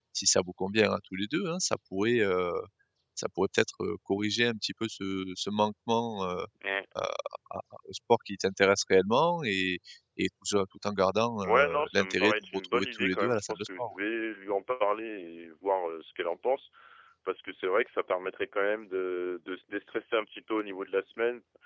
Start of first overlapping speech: 11 s

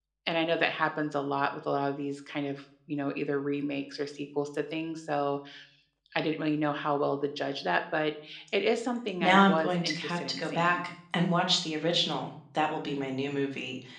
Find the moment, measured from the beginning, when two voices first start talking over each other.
9 s

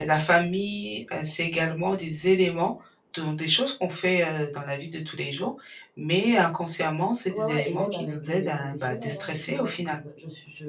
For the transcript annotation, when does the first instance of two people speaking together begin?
7 s

